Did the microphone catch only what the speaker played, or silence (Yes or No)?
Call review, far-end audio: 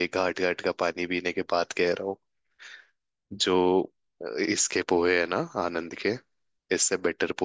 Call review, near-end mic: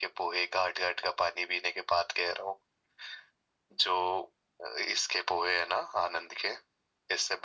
Yes